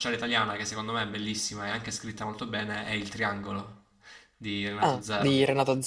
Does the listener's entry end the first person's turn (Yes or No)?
Yes